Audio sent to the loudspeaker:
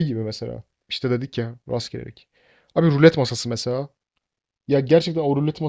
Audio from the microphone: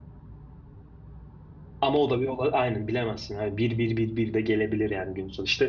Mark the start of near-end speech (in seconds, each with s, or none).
1.8 s